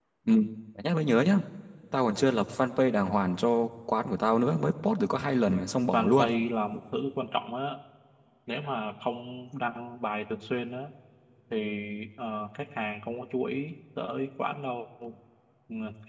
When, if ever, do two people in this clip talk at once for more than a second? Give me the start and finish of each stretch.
none

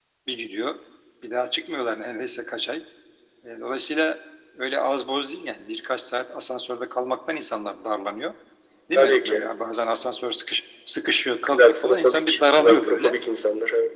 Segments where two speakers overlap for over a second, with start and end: 11.5-13.2

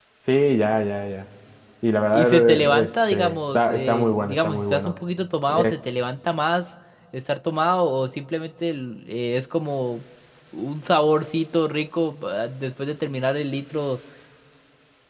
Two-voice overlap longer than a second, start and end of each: 2.1-5.0

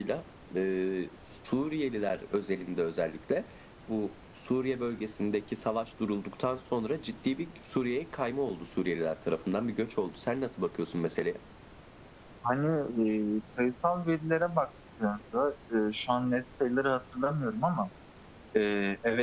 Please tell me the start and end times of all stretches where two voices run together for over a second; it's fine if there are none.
none

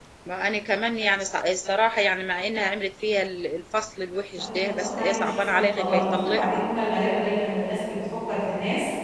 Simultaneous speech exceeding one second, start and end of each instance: 4.3-6.6

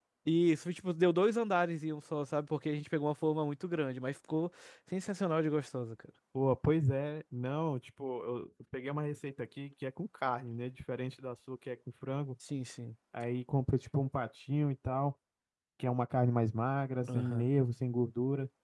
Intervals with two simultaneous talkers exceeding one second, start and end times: none

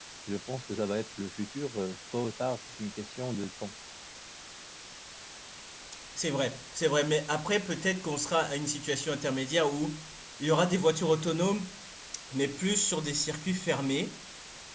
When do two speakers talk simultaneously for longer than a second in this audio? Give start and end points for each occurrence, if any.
none

